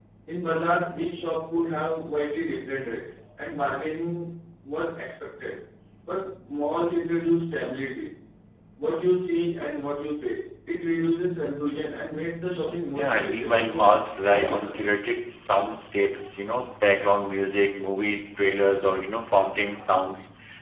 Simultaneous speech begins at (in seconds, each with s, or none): 12.9 s